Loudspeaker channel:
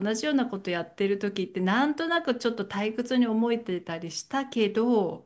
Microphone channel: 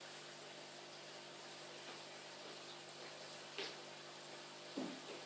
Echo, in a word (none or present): none